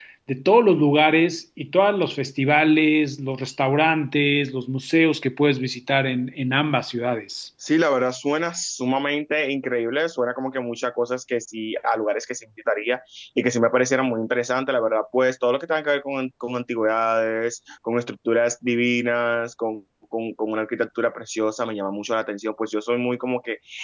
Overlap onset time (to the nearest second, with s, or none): none